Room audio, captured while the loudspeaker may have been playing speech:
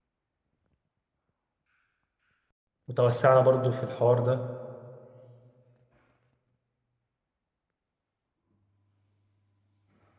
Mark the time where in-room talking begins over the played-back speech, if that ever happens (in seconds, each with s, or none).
2.9 s